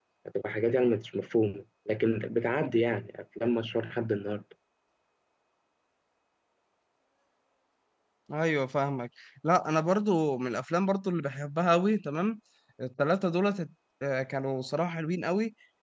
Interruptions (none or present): none